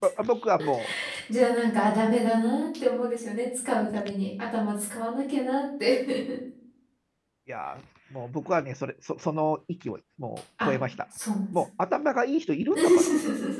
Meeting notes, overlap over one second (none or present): none